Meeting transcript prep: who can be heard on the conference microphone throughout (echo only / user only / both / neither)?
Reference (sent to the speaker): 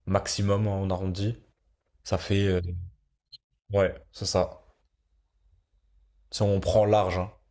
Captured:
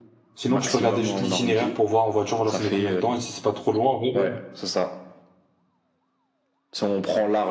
both